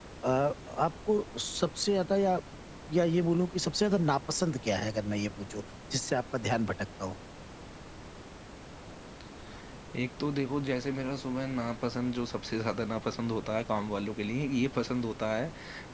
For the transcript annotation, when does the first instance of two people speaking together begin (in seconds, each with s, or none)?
none